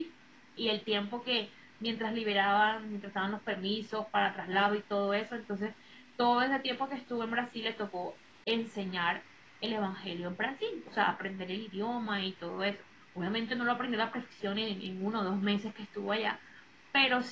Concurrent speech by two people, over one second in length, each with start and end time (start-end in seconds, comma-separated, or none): none